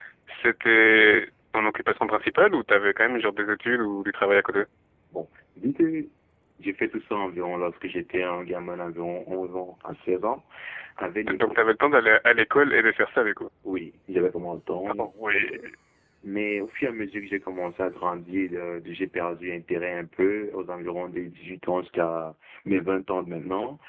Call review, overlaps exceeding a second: none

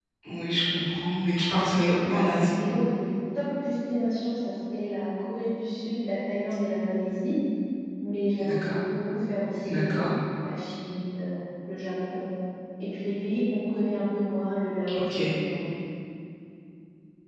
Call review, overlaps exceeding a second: none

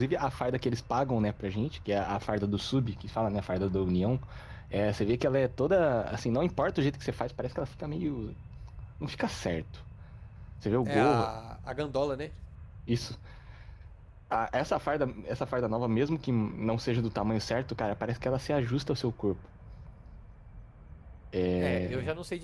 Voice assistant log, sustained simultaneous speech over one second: none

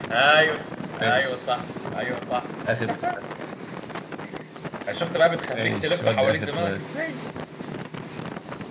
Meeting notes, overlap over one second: present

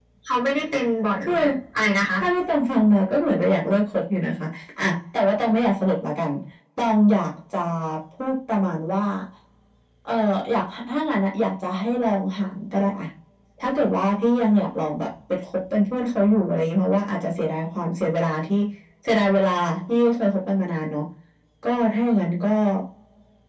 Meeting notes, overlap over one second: none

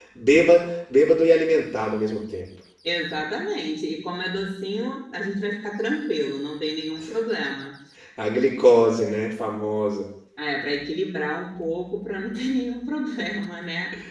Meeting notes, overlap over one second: none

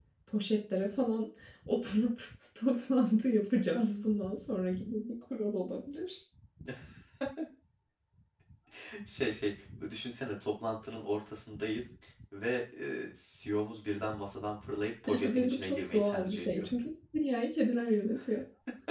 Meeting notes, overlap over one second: present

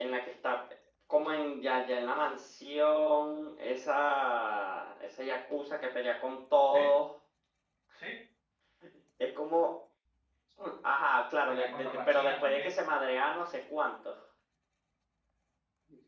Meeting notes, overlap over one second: present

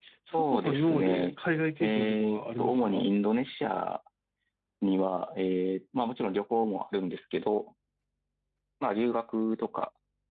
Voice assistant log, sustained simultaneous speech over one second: present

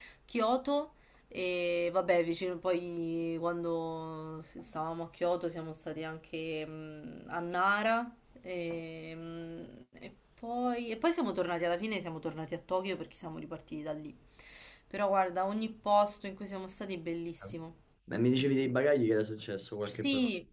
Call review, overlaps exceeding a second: none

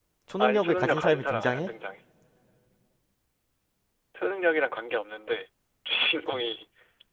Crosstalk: present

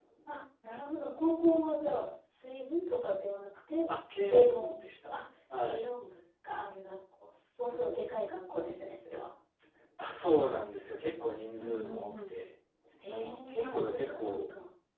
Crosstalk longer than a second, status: present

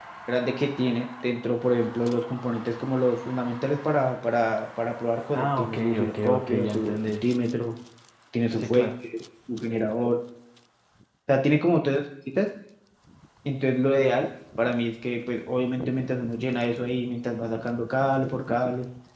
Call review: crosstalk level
present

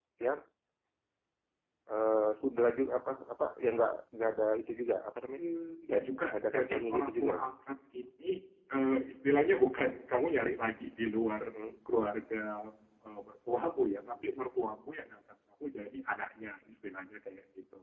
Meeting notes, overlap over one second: present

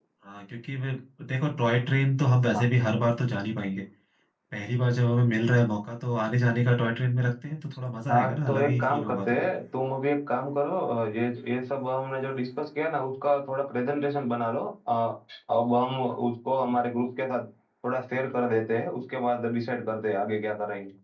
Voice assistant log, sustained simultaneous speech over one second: present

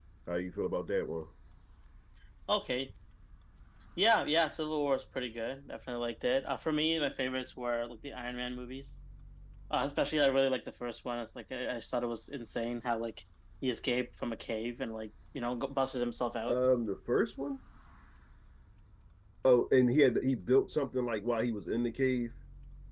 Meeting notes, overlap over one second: none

